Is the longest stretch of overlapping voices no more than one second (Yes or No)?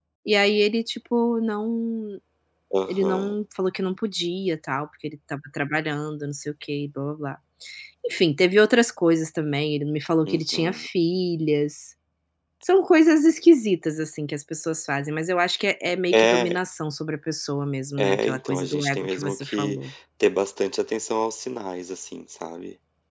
No